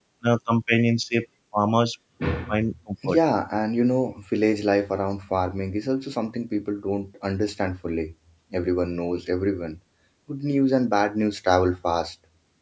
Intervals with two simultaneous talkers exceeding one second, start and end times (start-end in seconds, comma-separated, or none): none